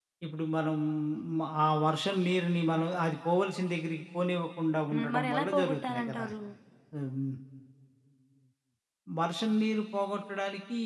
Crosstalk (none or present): present